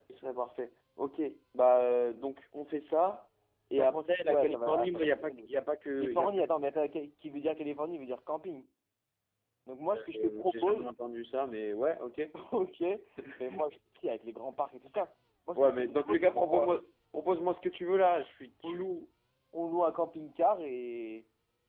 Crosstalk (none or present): present